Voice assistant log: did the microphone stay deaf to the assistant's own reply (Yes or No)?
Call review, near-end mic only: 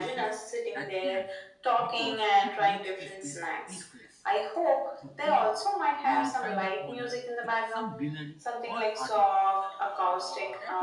No